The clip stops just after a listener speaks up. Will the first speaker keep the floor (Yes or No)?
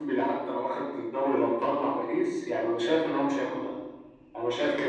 Yes